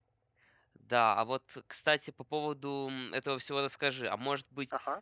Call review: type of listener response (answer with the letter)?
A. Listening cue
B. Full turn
A